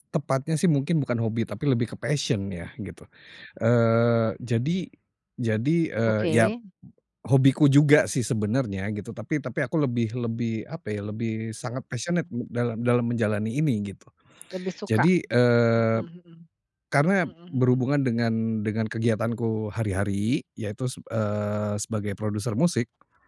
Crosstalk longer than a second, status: none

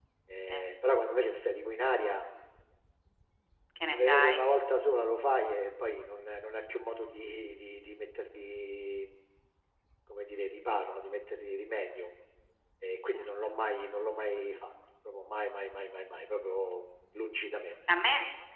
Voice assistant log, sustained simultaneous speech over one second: none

